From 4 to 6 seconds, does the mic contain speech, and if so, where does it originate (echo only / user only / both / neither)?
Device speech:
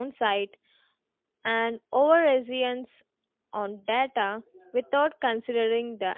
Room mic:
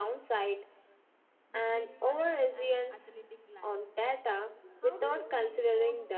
both